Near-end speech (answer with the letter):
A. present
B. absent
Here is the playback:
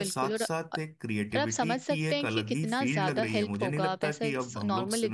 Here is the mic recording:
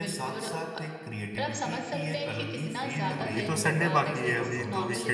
A